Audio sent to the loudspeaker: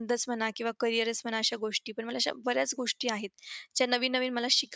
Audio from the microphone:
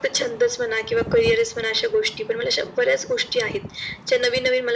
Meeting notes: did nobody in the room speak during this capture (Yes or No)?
Yes